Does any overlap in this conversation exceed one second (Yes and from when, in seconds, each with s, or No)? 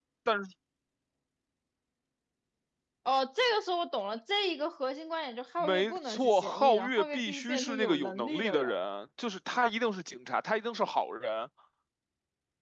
Yes, from 5.6 s